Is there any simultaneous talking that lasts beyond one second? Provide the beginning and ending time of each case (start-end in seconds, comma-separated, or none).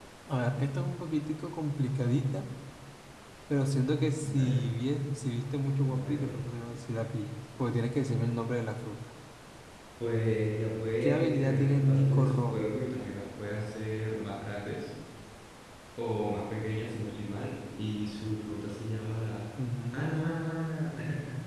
11.0-12.8